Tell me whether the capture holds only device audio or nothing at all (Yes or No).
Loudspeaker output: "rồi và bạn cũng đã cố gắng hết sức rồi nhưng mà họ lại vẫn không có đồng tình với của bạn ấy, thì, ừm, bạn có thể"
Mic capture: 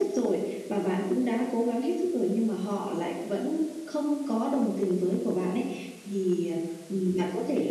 Yes